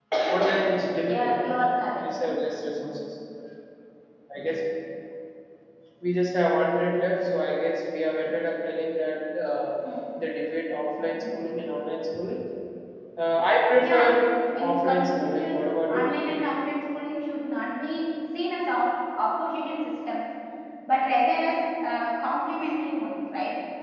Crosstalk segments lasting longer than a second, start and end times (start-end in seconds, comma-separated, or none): 14.6-16.1